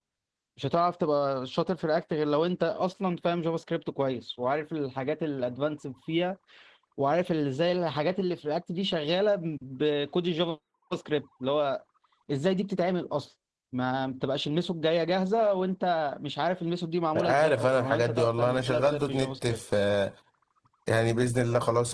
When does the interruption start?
17.2 s

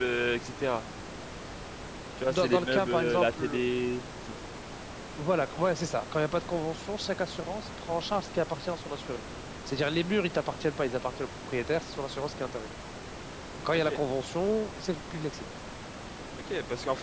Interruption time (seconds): 2.3 s

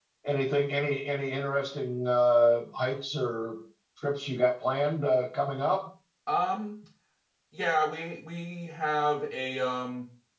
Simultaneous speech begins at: none

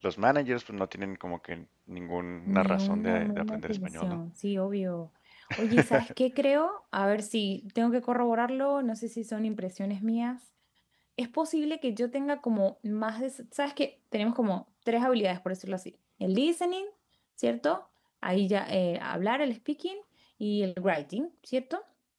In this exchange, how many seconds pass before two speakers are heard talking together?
2.5 s

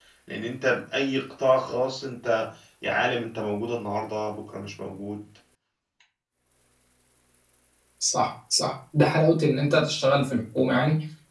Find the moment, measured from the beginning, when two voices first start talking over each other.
none

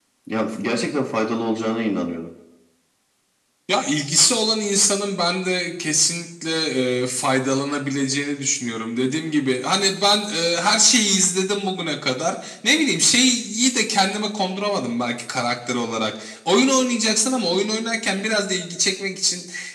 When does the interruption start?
none

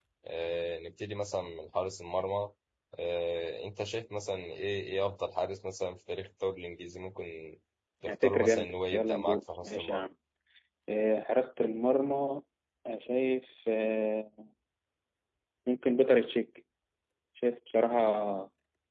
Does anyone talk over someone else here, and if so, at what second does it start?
8.0 s

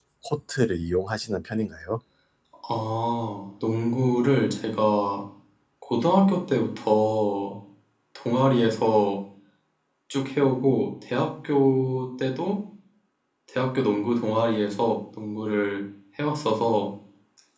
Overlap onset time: none

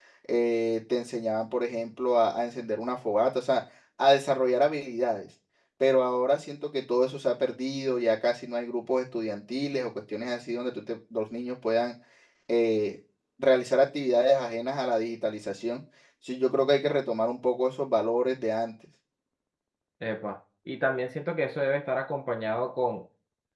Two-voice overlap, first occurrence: none

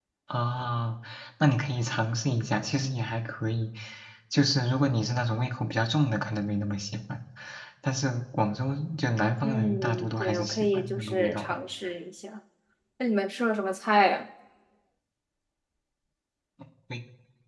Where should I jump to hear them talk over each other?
9.4 s

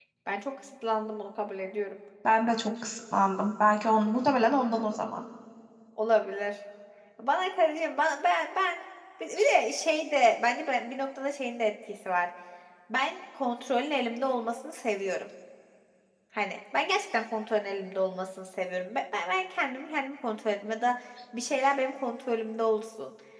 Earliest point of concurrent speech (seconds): none

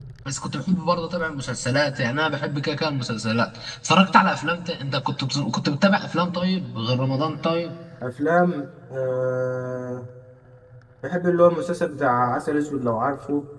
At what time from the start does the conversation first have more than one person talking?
none

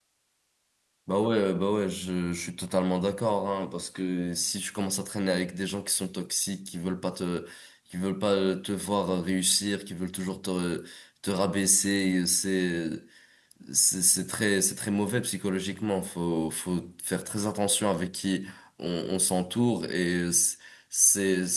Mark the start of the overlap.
none

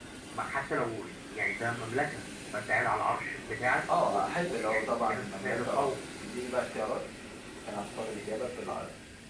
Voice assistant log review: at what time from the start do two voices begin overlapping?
3.9 s

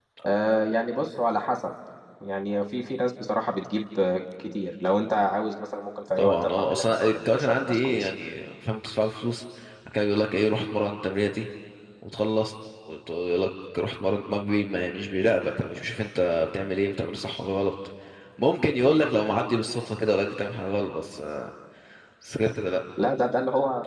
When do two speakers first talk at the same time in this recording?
6.2 s

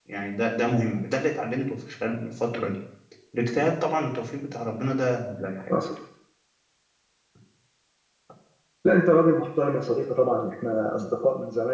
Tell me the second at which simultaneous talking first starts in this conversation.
none

